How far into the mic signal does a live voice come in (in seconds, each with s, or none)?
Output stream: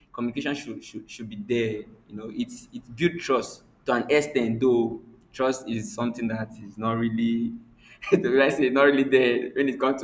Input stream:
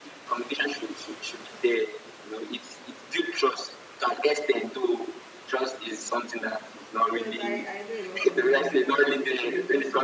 7.0 s